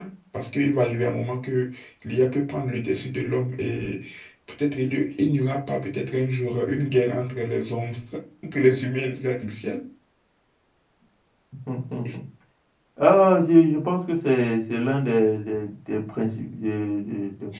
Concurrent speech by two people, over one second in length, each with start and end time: none

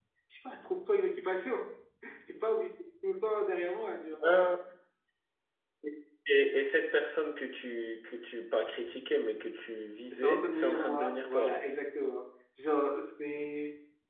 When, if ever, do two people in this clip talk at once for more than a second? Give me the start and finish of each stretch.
10.1-11.6

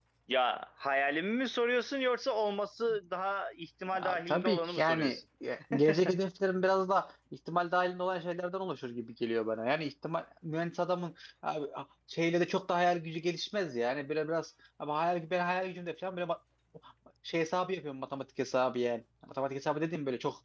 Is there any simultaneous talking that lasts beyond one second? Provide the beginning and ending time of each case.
3.9-5.2

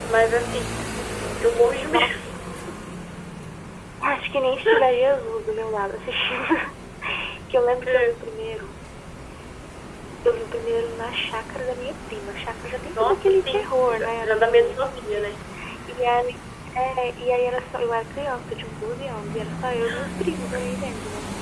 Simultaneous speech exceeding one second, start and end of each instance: 13.0-14.8

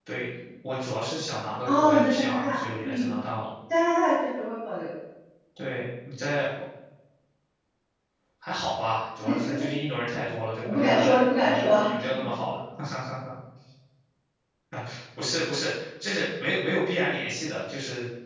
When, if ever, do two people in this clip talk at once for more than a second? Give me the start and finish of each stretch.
1.6-3.1, 10.7-12.3

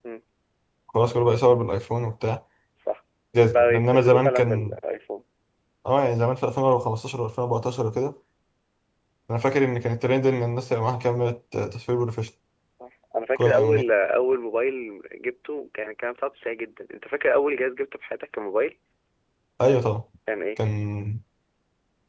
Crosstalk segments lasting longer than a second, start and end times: 3.5-4.8

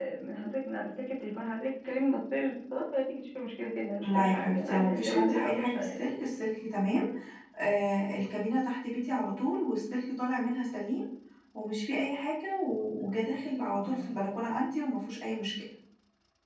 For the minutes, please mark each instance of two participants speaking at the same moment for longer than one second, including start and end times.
4.0-6.0

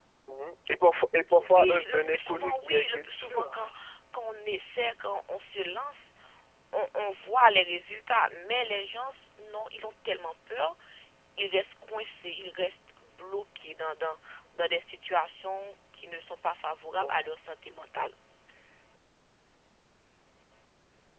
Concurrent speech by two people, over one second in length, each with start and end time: 1.5-3.5

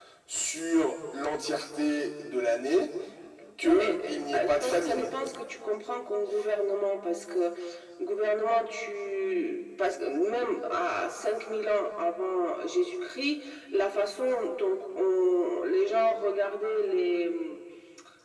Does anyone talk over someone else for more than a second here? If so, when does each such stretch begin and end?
3.6-5.1

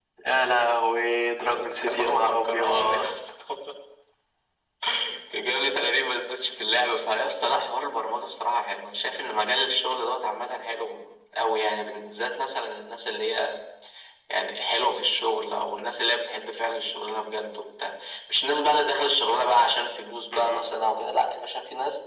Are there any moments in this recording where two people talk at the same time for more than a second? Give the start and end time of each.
1.5-3.1

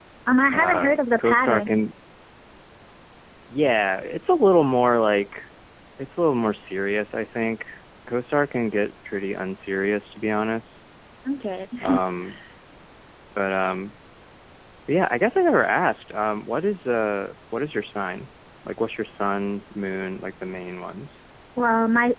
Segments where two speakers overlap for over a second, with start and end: 0.5-1.8

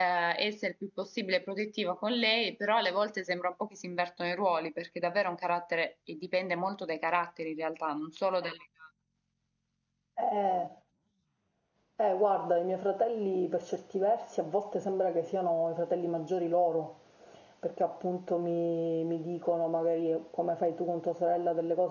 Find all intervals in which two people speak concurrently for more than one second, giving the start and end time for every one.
none

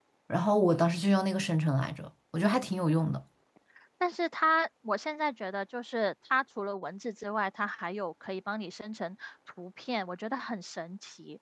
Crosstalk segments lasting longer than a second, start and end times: none

